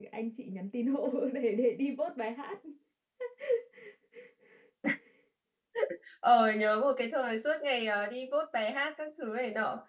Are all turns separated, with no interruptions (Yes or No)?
Yes